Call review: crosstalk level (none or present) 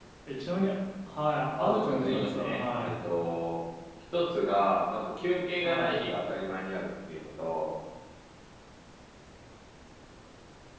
present